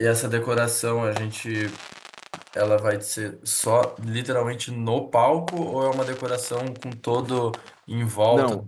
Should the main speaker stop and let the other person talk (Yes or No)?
Yes